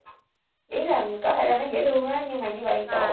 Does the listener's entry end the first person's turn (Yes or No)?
No